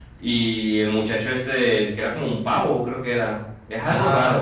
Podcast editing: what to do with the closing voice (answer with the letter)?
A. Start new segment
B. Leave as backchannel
A